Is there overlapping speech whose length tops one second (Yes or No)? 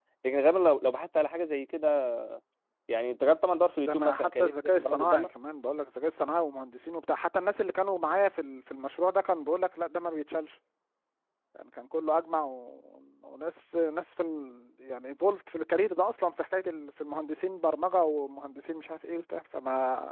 Yes